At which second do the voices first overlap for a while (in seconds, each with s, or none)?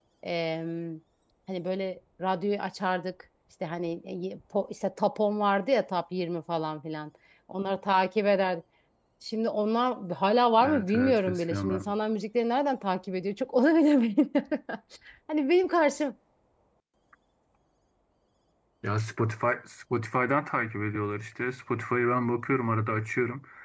10.5 s